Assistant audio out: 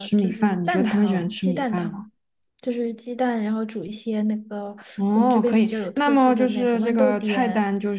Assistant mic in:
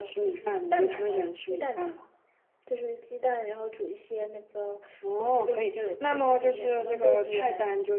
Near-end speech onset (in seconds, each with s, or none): none